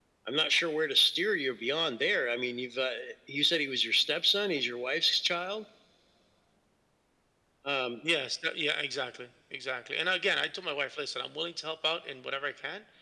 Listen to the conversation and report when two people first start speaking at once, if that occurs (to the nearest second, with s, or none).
none